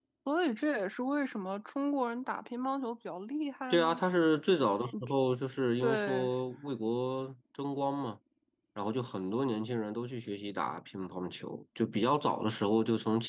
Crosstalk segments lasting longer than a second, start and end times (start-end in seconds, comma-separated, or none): none